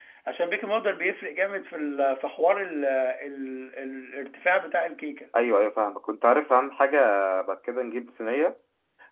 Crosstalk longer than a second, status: none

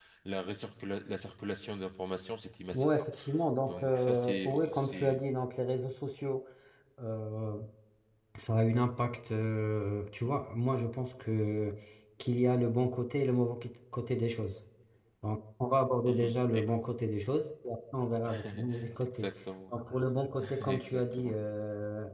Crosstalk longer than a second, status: present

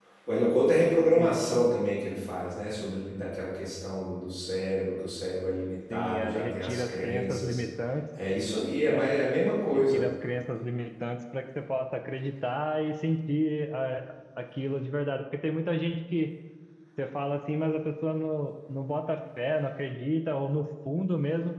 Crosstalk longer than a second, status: present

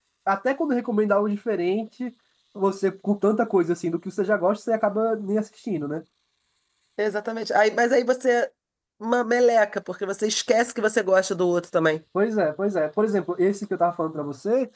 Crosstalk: none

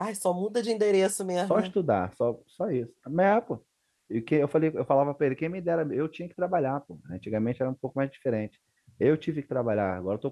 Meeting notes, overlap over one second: none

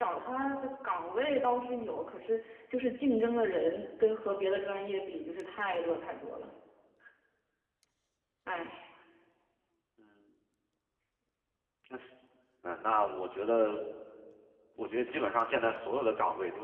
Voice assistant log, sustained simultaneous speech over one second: none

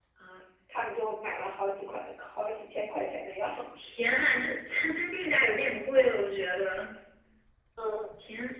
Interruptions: none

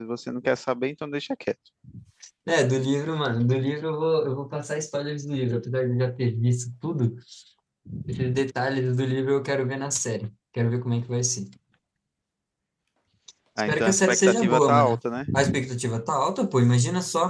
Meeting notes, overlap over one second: present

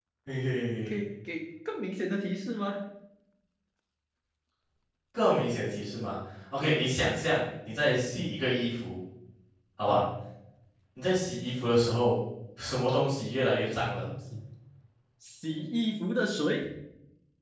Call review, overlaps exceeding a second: none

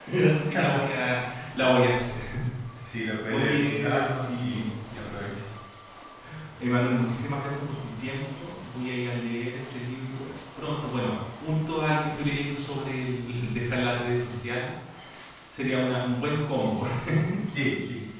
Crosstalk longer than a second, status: present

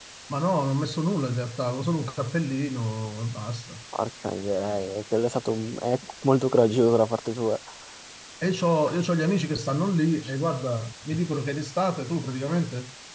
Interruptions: none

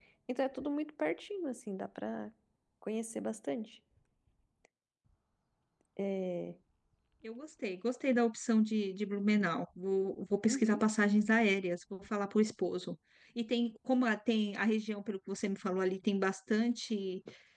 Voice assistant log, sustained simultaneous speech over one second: none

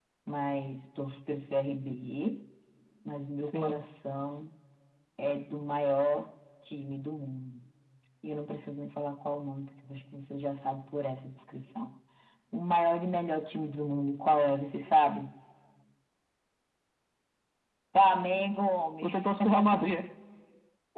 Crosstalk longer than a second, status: none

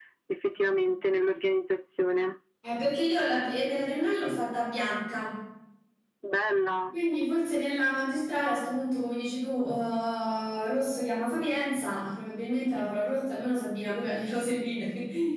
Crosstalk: none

